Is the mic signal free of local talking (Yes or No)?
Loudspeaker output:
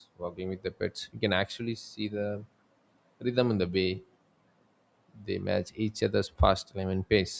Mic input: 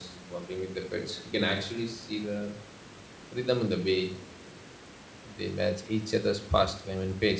Yes